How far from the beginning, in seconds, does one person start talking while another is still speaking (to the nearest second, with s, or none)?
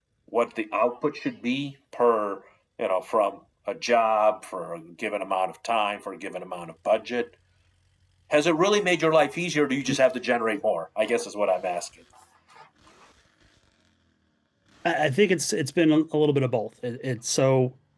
none